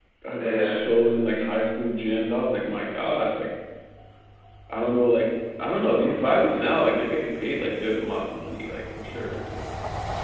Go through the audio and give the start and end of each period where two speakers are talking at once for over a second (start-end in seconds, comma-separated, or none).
5.6-6.8